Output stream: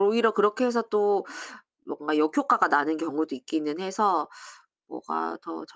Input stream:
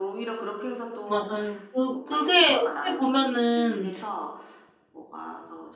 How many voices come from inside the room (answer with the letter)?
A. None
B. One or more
B